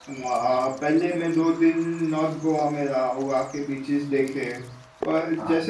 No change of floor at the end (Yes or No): Yes